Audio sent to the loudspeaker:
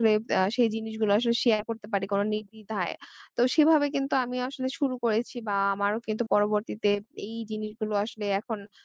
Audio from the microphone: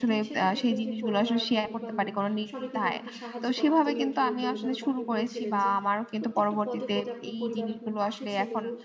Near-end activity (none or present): present